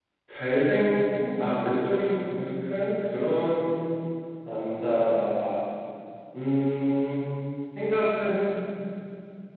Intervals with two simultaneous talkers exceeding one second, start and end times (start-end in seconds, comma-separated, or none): none